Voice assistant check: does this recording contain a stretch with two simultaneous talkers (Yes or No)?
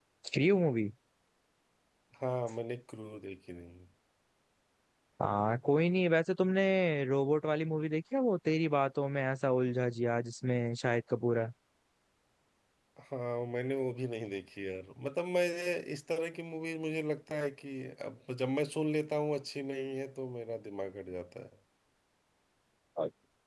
No